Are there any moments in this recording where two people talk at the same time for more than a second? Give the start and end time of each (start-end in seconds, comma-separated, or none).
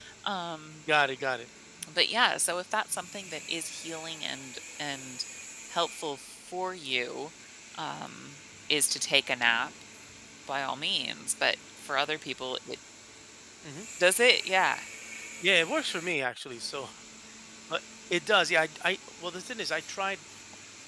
none